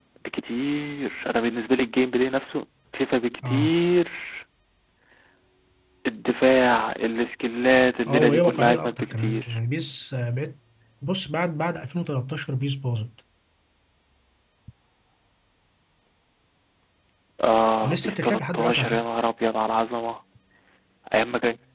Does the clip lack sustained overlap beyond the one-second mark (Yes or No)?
No